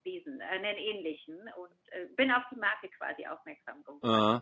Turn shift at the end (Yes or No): Yes